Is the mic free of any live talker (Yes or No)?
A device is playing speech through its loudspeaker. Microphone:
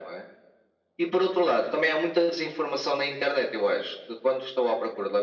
Yes